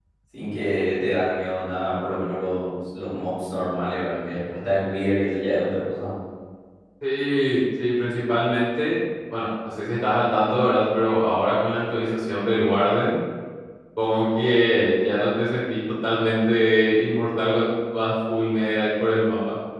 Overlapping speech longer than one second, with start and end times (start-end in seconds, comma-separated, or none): none